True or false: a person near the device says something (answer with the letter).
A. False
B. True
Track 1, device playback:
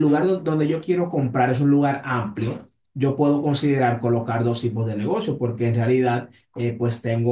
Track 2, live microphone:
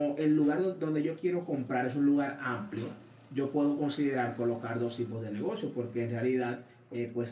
A